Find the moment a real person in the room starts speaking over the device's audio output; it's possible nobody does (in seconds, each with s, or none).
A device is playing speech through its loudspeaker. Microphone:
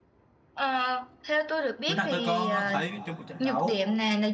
1.9 s